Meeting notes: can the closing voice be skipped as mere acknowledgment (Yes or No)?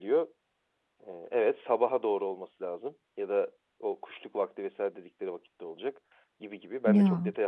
Yes